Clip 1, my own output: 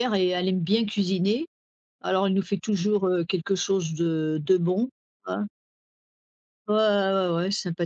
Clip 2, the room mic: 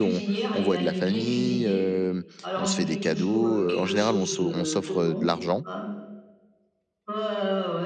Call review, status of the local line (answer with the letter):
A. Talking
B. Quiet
A